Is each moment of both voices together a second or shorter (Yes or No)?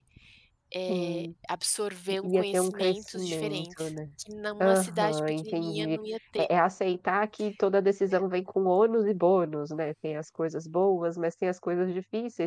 No